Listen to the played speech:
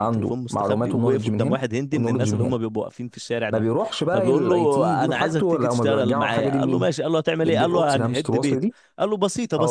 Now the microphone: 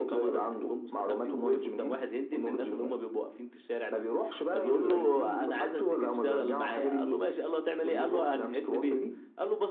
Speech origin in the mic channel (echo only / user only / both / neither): echo only